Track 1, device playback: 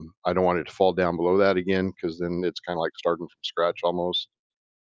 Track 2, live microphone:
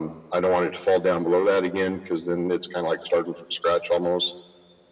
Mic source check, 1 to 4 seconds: echo only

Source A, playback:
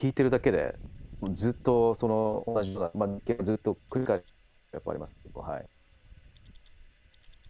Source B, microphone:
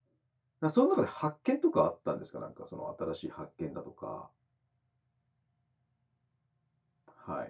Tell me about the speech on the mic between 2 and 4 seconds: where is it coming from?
user only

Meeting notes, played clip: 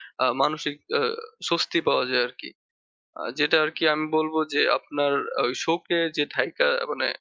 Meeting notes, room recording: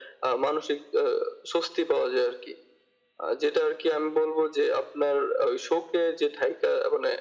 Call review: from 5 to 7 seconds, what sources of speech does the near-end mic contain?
echo only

